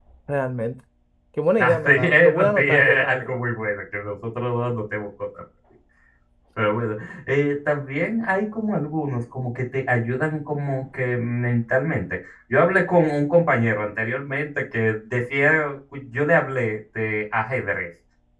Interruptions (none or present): present